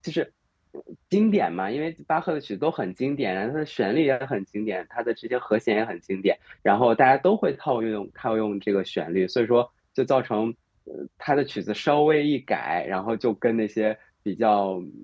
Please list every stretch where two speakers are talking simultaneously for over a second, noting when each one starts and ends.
none

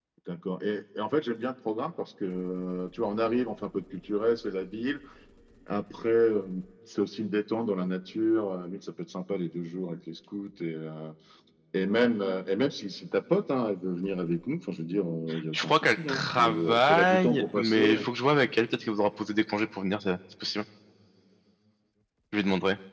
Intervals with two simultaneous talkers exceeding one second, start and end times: 15.5-18.0

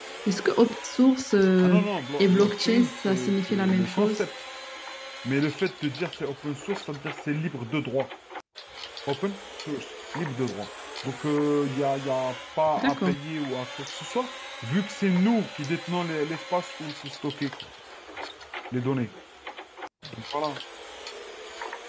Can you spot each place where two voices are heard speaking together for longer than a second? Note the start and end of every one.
2.2-4.2

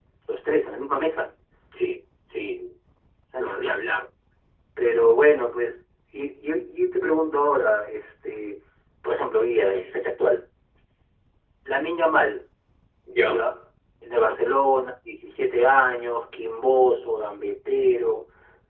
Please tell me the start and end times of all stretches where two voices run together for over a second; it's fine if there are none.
none

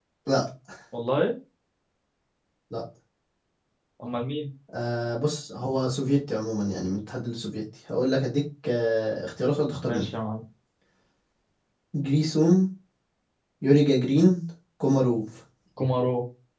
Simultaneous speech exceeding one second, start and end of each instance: none

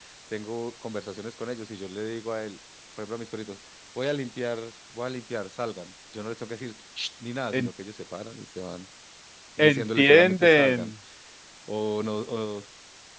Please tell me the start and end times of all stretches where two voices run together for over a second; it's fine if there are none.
9.6-10.9

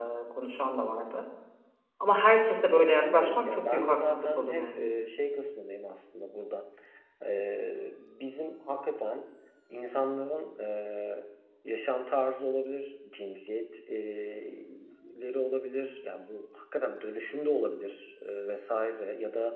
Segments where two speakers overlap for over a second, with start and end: 2.9-4.9

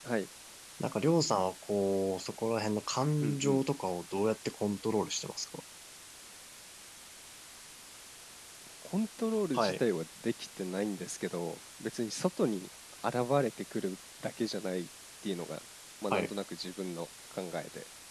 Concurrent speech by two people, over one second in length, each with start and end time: none

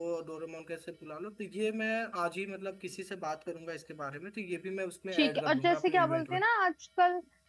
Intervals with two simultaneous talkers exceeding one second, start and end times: 5.1-6.4

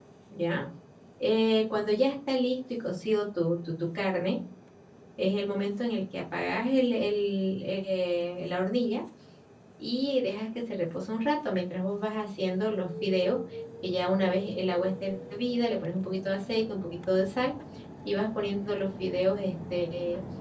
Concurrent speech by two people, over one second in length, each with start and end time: none

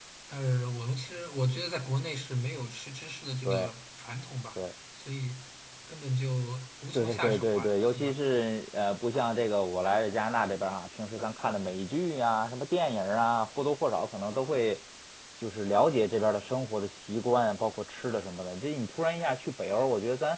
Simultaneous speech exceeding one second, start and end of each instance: 6.9-8.1

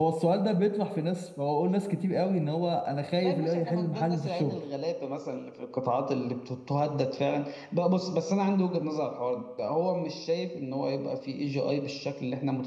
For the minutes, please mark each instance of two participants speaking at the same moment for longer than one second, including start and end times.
3.2-4.6

